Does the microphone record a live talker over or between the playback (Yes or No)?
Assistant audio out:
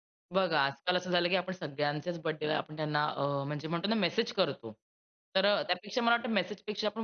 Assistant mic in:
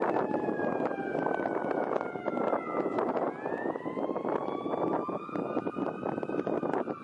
No